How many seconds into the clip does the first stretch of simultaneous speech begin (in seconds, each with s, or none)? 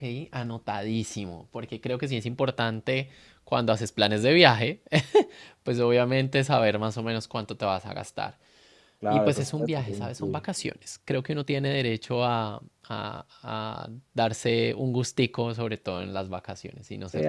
9.1 s